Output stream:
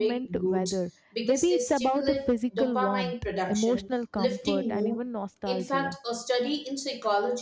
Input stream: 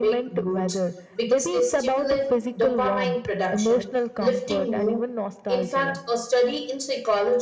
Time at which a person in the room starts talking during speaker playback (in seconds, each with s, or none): none